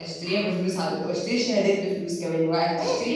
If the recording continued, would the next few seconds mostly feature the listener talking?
Yes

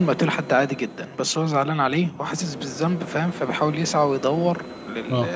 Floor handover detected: No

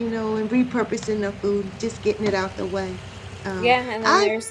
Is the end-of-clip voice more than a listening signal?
Yes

